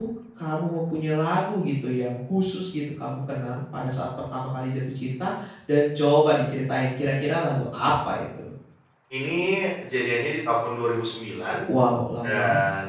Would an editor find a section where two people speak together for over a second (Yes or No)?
No